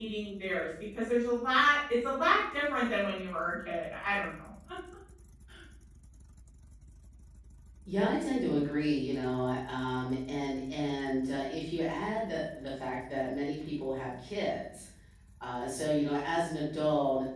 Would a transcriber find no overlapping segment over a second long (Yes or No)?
Yes